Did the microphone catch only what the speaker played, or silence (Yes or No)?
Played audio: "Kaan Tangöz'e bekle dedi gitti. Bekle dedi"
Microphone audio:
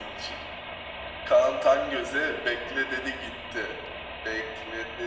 Yes